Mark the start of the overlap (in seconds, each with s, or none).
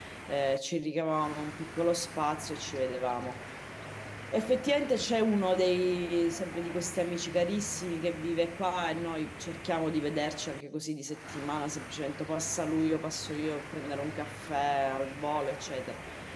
none